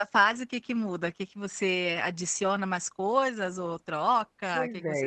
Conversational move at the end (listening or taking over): taking over